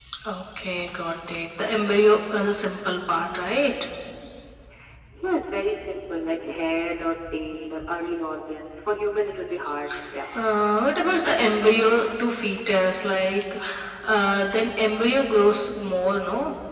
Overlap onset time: none

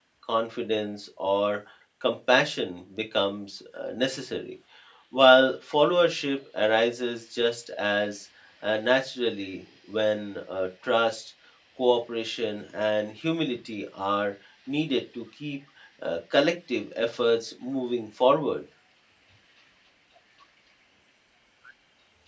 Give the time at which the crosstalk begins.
none

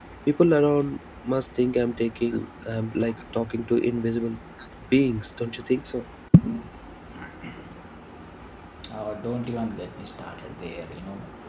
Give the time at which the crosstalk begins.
none

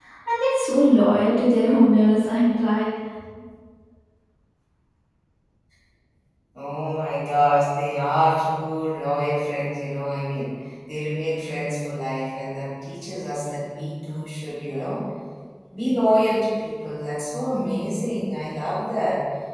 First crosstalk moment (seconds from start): none

